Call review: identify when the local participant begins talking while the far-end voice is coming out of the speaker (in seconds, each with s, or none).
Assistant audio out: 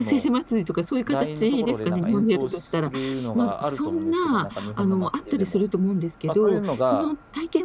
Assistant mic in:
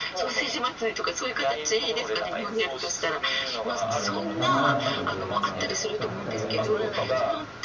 3.8 s